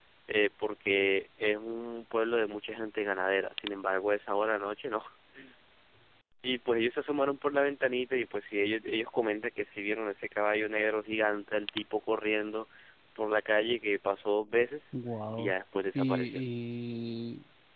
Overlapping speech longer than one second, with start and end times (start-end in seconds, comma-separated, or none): none